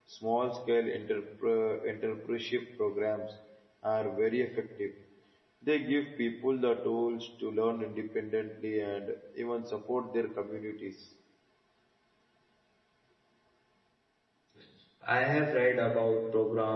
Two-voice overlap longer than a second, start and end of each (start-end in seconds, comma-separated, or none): none